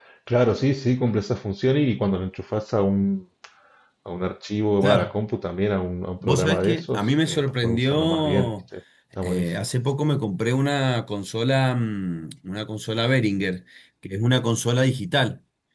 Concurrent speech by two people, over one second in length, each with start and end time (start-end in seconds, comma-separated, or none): 6.2-8.5